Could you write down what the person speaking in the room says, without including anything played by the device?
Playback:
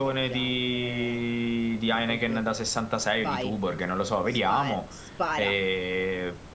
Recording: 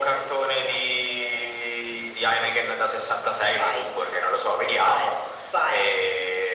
none

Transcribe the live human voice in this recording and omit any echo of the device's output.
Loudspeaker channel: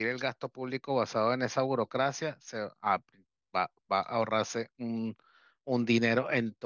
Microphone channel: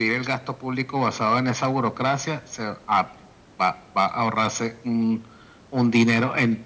none

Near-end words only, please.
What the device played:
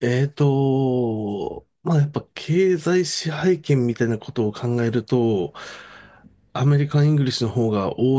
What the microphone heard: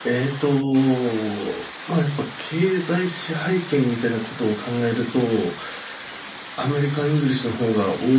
none

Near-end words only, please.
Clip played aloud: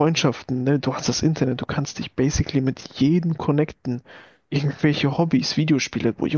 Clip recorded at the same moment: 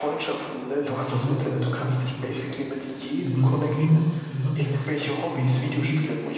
das ist nochmal so eine Story für sich. Also meine Cousine äh, hat eine Praxis hier in Dortmund

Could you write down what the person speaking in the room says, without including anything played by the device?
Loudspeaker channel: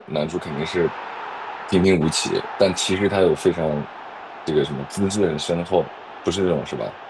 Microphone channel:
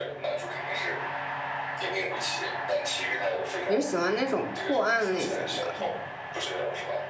你是喜欢那种破案类型吗？

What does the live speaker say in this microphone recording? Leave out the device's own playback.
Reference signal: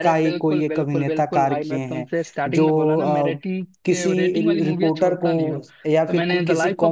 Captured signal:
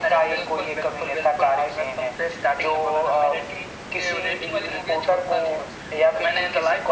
none

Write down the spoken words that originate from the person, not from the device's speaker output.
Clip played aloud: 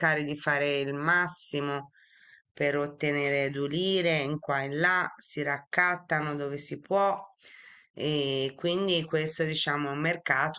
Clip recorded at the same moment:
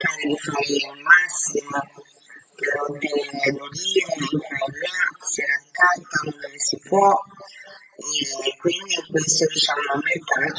none

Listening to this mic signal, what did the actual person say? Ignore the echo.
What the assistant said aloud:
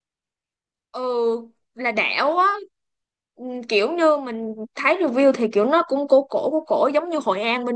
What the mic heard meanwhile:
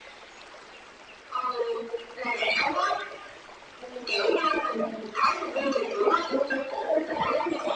none

